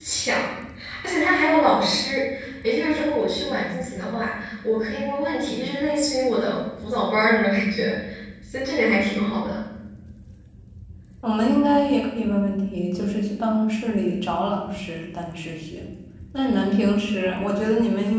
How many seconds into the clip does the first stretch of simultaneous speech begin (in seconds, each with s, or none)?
none